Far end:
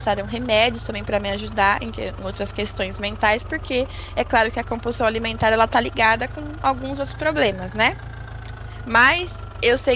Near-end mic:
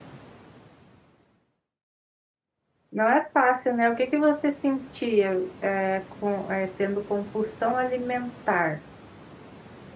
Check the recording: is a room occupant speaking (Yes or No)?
Yes